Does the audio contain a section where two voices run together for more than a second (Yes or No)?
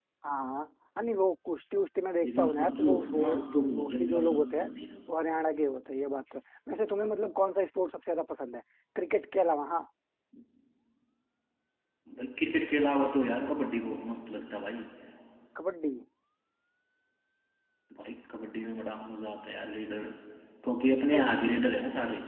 Yes